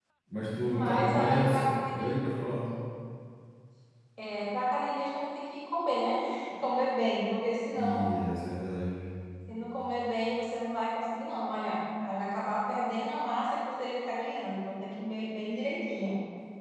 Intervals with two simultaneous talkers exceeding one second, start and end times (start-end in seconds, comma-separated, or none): 0.6-2.1